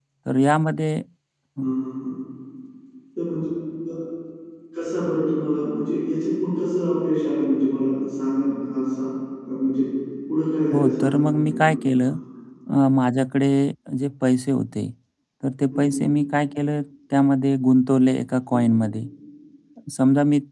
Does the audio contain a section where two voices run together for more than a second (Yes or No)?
Yes